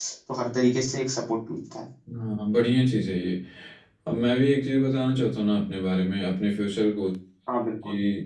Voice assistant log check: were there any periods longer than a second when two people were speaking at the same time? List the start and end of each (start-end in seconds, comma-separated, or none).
none